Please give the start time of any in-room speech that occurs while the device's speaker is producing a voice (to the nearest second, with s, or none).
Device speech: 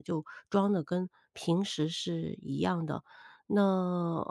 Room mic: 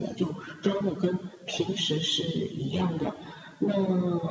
none